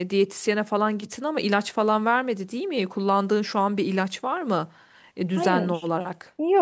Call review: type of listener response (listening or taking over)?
taking over